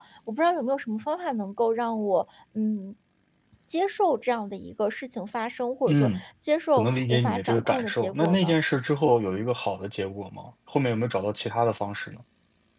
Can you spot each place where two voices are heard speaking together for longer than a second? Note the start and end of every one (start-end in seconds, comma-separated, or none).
6.7-8.6